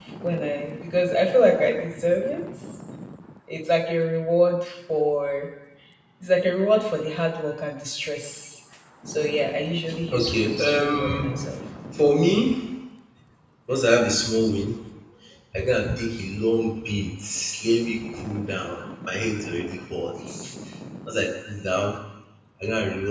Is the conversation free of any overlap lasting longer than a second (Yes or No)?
No